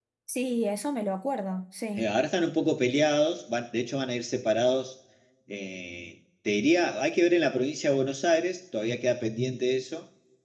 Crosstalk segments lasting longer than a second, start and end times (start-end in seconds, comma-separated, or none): none